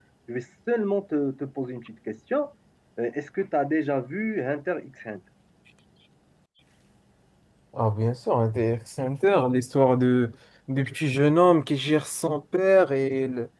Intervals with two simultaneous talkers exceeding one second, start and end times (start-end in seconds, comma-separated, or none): none